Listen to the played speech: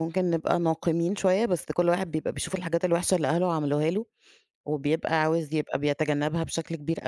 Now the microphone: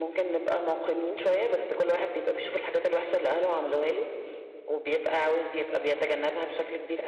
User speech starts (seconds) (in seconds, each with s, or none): none